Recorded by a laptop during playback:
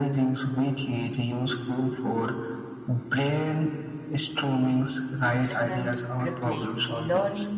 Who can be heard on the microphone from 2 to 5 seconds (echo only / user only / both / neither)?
echo only